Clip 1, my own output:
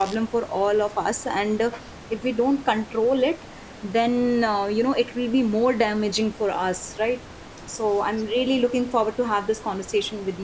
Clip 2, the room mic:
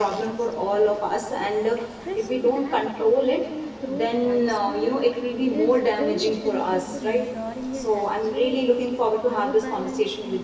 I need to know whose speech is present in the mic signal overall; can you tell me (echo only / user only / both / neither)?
both